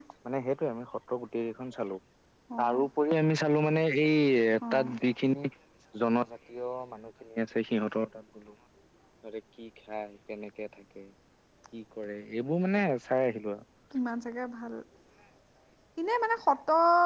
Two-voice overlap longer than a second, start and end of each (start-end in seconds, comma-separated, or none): none